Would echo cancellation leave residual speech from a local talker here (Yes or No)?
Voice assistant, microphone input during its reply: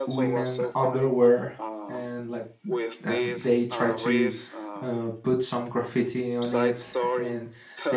Yes